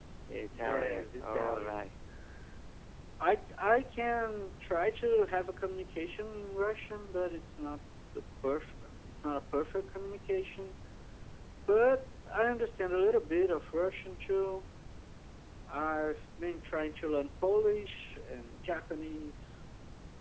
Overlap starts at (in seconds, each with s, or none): 0.6 s